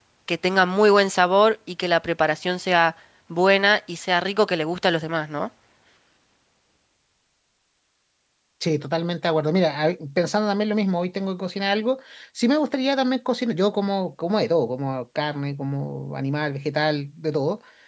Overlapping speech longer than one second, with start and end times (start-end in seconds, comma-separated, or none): none